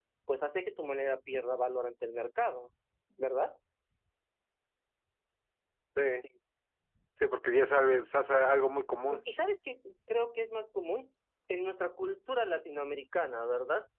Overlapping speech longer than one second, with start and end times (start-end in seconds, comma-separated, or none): none